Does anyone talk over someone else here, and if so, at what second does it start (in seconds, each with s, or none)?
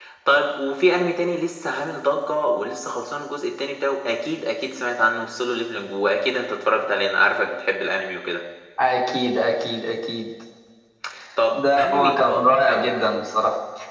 11.6 s